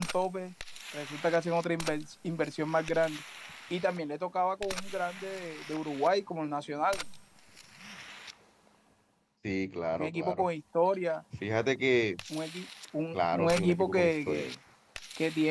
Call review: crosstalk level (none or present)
present